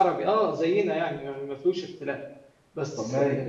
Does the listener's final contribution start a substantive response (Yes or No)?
No